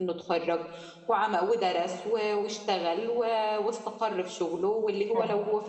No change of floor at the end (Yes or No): Yes